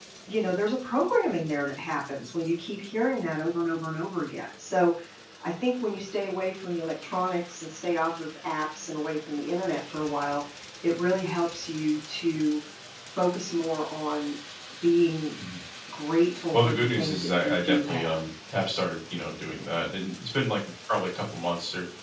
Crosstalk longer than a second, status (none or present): present